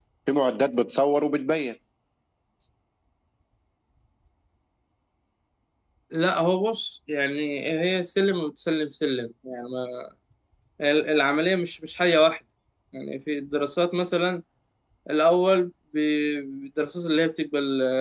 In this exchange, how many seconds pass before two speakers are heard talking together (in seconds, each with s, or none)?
none